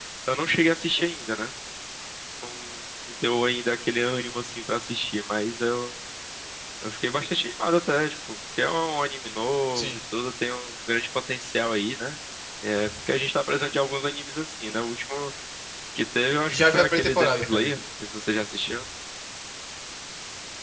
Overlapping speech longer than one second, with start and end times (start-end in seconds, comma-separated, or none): 16.5-17.7